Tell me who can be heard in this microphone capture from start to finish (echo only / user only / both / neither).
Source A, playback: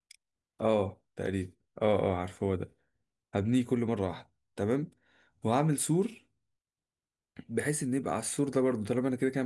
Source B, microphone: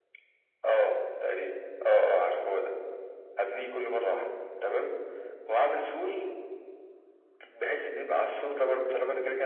echo only